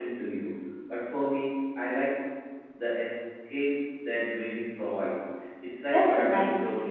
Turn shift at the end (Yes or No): Yes